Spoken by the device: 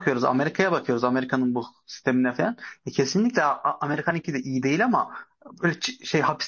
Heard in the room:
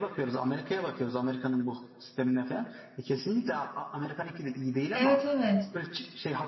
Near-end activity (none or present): present